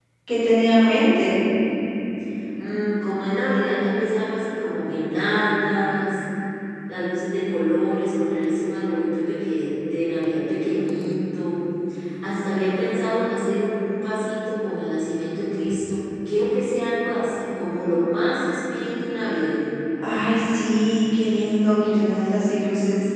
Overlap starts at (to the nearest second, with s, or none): none